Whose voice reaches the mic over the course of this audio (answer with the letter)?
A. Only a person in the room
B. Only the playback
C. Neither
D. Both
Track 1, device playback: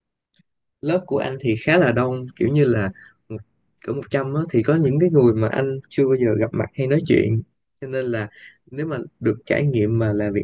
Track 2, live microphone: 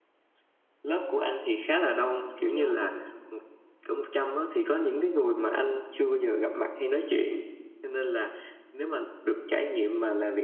D